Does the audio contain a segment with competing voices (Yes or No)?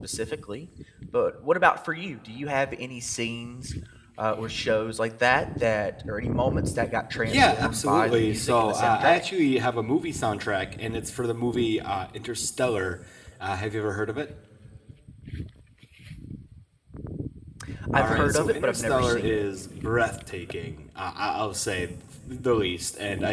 Yes